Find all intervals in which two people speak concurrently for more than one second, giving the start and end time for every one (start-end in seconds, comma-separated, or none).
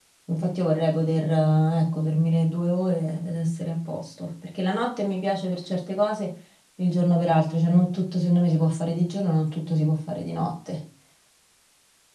none